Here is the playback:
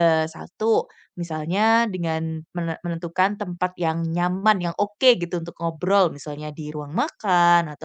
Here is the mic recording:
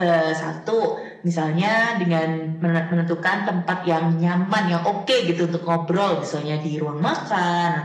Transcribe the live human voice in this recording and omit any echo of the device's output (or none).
none